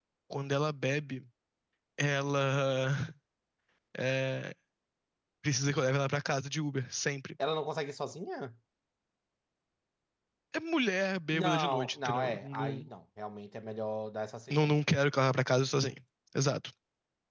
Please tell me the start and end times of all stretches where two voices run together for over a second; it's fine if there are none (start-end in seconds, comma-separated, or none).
11.3-12.9